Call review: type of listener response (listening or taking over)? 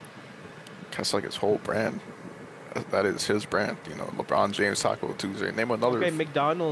taking over